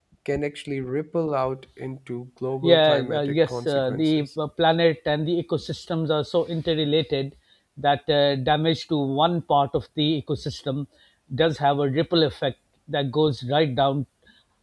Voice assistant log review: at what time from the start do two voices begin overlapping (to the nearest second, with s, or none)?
3 s